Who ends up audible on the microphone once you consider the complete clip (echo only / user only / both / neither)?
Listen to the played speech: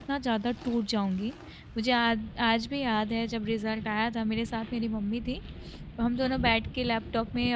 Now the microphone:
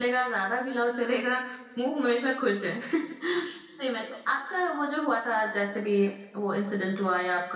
user only